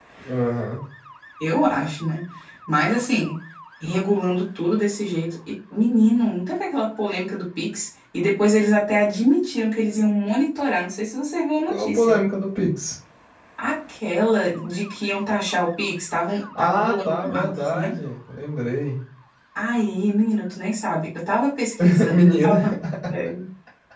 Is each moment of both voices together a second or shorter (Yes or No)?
No